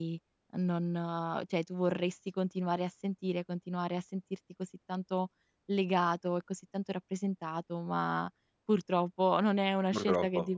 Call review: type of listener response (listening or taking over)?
listening